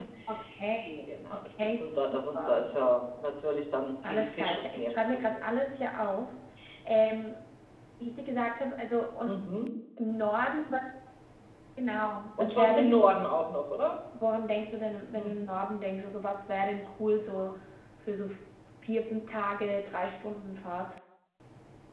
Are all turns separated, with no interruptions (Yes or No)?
No